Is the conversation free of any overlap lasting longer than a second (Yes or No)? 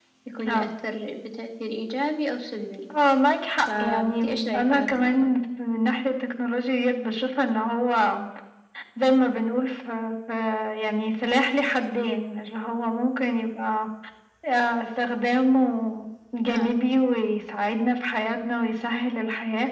No